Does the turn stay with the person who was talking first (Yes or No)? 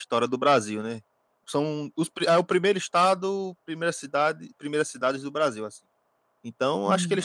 Yes